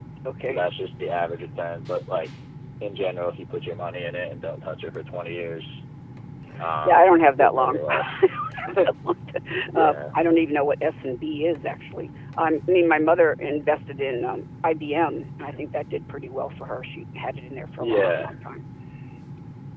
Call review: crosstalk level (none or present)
present